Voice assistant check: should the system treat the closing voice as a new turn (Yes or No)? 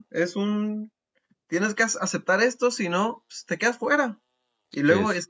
No